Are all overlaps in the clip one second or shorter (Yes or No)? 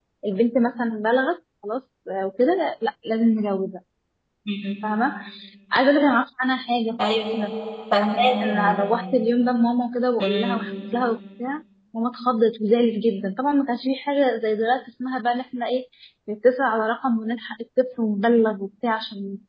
Yes